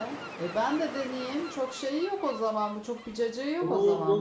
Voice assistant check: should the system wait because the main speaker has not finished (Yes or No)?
No